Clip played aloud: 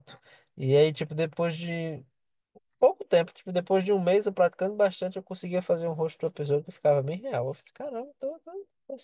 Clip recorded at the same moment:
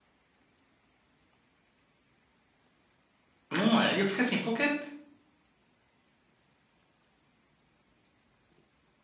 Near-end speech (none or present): present